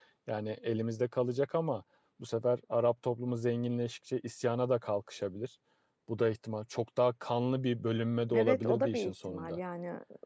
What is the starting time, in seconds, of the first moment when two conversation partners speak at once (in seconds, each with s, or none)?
8.3 s